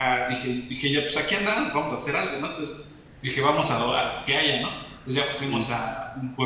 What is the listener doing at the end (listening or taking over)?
listening